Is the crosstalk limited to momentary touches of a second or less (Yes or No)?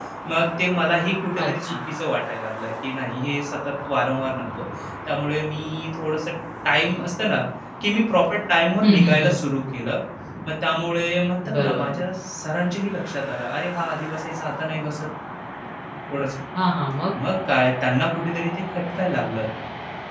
Yes